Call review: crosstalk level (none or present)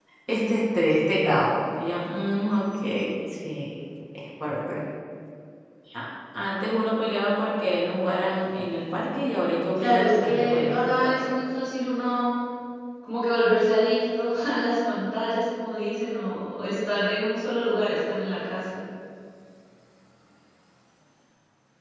present